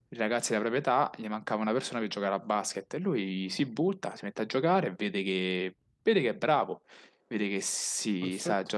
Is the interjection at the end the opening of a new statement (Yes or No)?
No